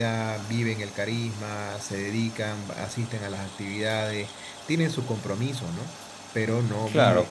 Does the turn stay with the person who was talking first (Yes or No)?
No